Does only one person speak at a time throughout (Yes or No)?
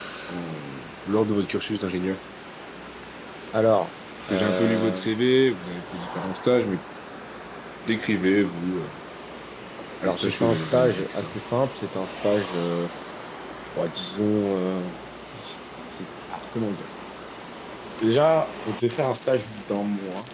No